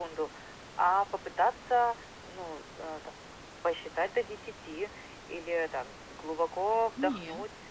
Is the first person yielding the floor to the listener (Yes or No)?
No